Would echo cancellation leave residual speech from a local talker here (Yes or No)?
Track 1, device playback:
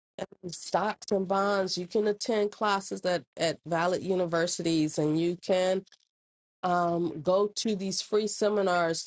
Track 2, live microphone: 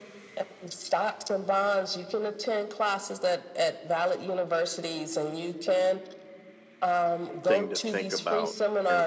Yes